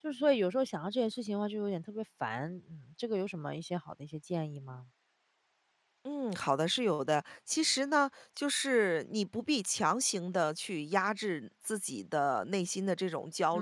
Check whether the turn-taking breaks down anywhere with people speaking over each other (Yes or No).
No